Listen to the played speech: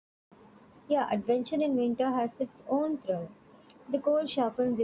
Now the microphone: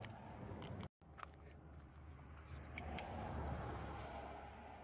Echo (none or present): none